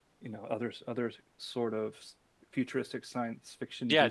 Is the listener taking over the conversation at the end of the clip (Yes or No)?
Yes